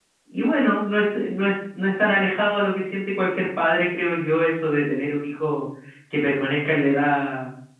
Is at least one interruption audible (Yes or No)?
No